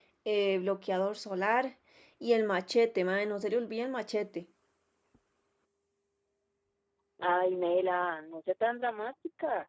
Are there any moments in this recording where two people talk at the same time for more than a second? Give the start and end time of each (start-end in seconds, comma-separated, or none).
none